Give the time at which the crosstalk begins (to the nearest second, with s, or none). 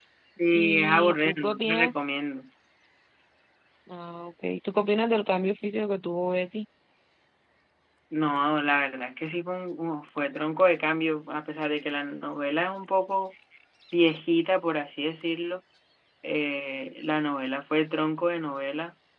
1 s